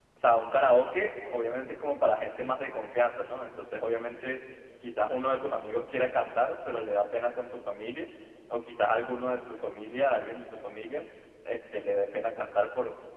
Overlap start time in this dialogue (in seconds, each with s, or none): none